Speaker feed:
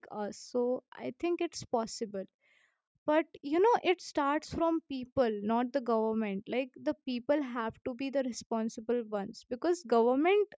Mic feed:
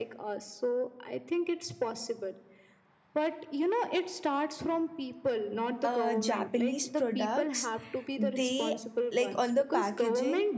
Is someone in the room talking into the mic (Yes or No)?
Yes